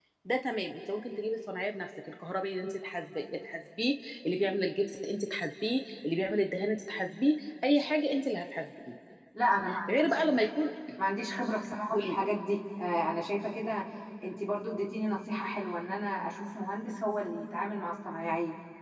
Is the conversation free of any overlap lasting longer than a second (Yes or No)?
Yes